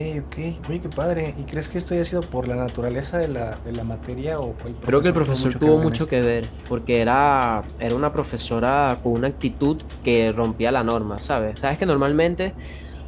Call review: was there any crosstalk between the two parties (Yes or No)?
Yes